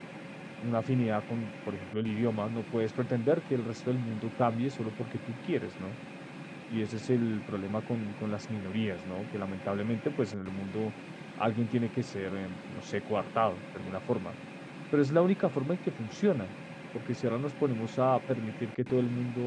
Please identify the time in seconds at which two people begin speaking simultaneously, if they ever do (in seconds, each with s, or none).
none